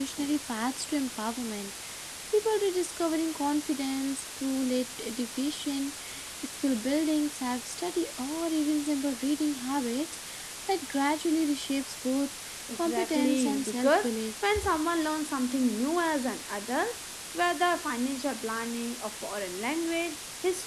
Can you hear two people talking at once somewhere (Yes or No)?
Yes